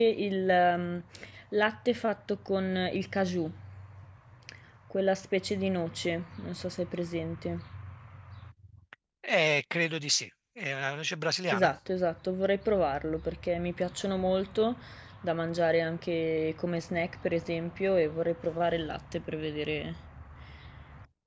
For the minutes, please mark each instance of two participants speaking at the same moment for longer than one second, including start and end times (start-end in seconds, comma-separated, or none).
none